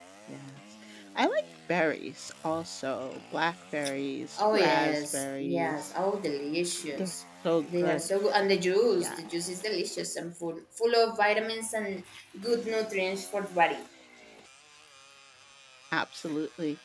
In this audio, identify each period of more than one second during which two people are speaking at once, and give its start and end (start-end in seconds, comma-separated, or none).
4.4-5.9